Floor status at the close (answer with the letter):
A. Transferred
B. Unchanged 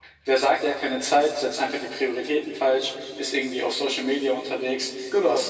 B